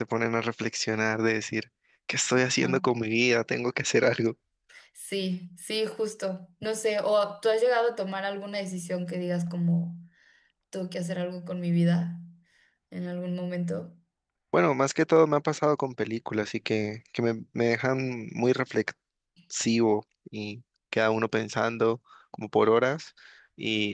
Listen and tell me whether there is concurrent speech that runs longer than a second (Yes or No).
No